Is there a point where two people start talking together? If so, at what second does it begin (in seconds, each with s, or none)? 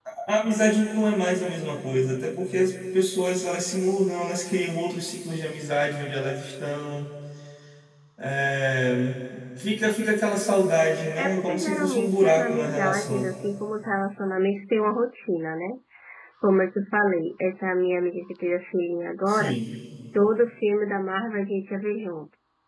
11.2 s